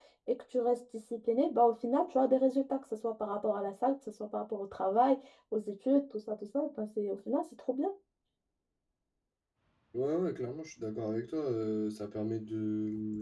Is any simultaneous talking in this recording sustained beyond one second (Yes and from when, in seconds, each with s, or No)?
No